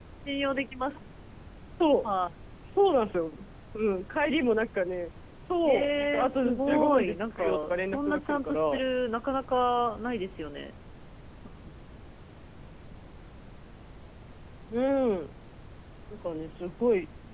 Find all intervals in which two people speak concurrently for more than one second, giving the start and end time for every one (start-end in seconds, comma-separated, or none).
5.6-8.8